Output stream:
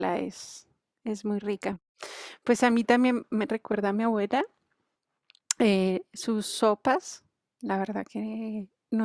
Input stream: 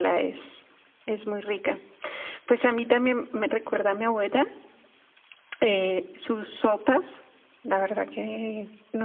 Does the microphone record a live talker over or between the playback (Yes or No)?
No